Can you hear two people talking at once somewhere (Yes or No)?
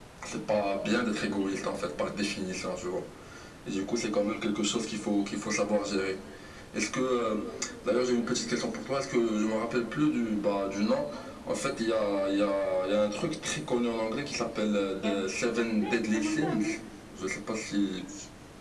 Yes